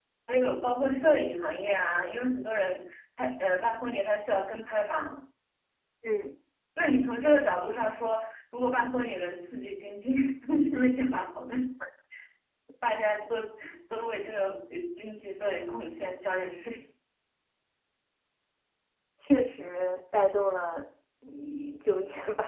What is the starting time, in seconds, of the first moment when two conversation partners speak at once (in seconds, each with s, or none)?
none